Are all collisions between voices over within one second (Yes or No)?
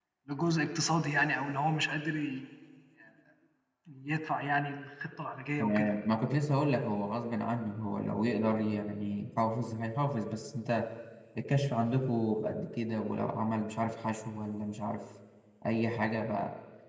Yes